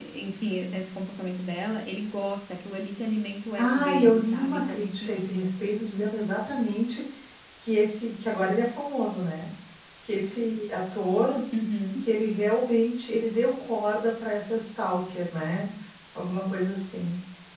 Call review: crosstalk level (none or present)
present